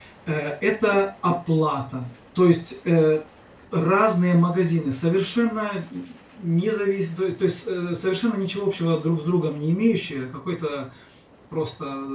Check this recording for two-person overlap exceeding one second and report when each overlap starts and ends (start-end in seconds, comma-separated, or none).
none